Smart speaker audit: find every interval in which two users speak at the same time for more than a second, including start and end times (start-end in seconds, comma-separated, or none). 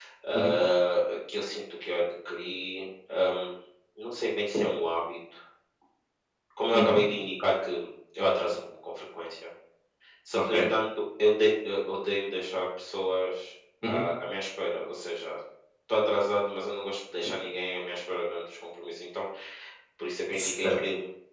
none